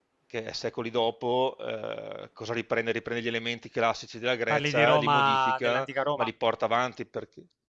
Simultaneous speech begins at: 4.5 s

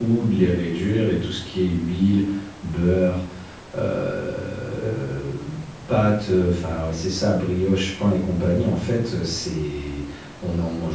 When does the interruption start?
none

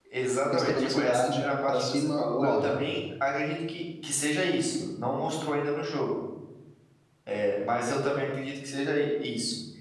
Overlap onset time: 0.5 s

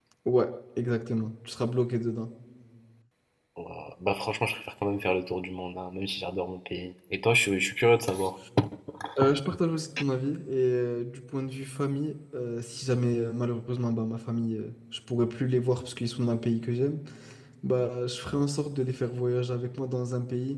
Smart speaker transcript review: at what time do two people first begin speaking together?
none

